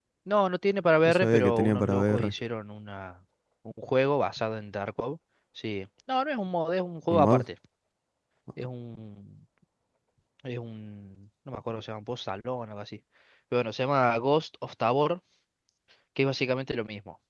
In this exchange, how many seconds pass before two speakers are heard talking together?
1.1 s

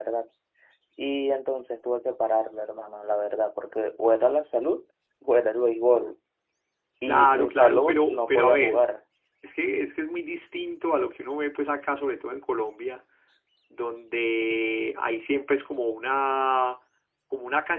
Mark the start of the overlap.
7.0 s

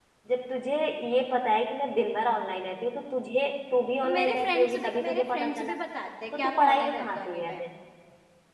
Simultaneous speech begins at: 4.0 s

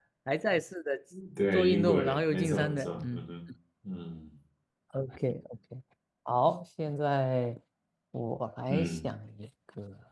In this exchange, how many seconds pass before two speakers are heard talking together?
1.5 s

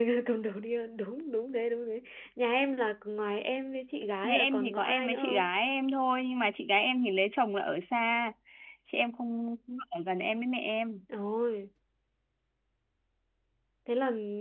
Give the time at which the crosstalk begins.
4.2 s

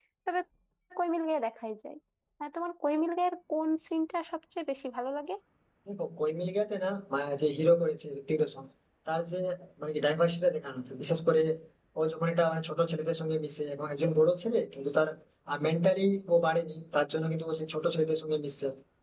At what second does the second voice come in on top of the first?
none

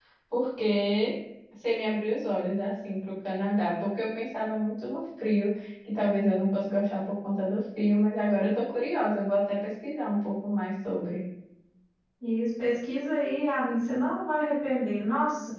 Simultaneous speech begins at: none

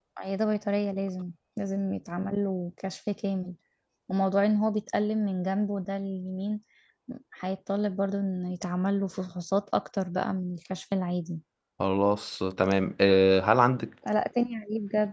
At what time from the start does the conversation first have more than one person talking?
none

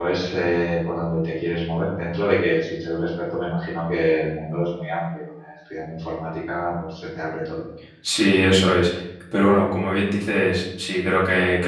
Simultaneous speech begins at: none

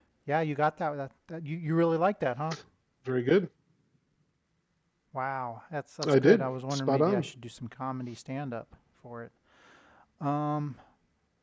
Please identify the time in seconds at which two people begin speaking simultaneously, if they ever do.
6.0 s

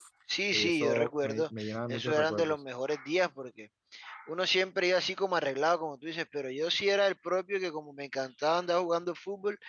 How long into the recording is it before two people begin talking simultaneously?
0.5 s

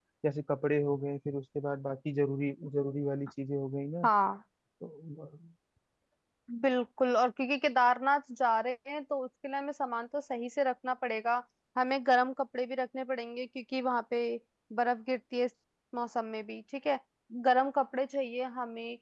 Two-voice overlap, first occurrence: none

